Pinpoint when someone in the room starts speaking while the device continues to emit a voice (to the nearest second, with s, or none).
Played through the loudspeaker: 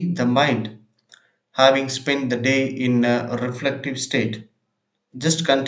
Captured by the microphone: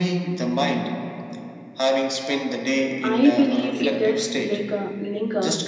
3 s